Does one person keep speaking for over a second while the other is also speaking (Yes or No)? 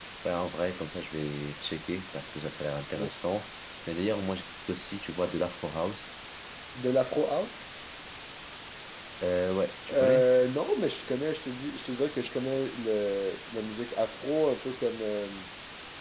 No